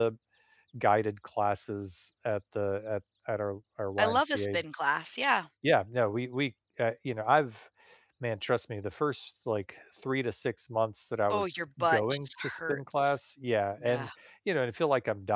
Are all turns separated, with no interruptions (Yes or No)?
No